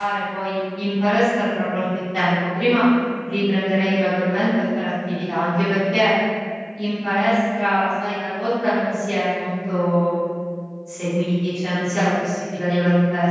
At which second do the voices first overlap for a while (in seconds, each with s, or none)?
none